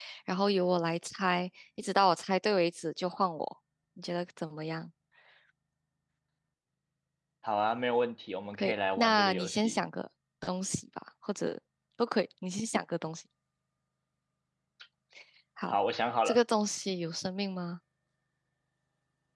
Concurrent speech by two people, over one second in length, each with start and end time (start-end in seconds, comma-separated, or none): 8.5-9.8